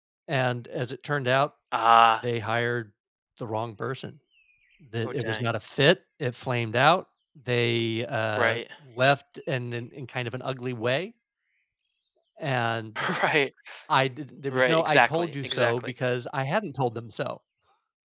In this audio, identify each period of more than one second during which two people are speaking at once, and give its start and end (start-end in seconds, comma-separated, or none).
14.5-15.9